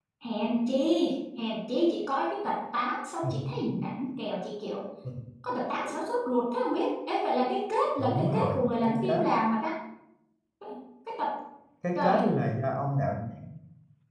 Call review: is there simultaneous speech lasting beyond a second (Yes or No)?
Yes